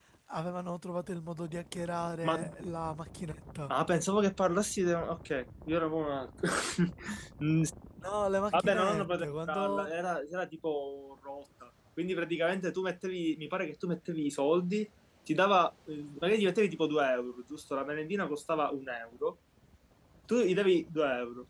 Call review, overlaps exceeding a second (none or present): present